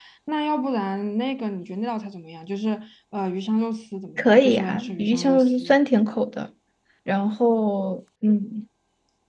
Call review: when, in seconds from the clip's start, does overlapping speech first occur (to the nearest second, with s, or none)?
4 s